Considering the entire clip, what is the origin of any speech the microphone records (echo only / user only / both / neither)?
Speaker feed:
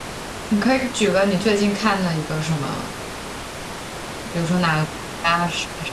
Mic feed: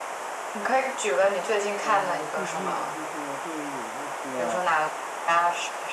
both